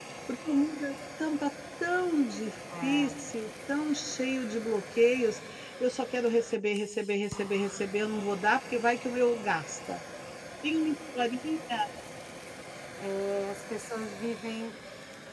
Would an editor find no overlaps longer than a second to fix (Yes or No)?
Yes